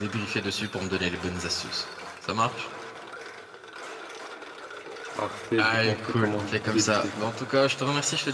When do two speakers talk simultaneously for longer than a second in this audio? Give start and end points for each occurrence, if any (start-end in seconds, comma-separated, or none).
5.6-7.3